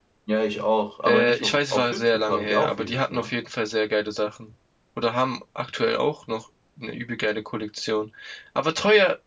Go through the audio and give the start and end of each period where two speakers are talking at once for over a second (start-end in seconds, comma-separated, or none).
1.1-3.3